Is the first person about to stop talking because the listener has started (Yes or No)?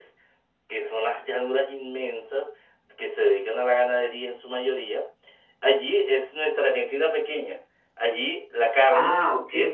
No